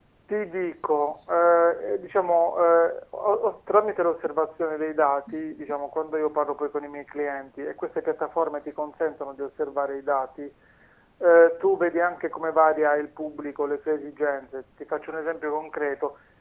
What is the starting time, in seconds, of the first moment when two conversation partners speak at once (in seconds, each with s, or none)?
none